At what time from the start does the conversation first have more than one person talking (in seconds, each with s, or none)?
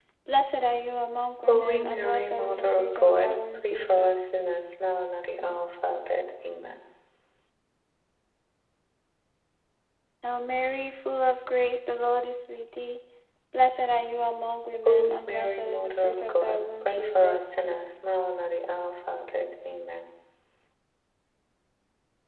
1.4 s